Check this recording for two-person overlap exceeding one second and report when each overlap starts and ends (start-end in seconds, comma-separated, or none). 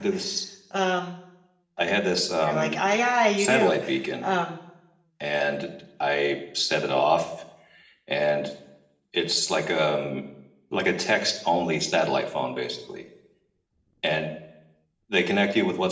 none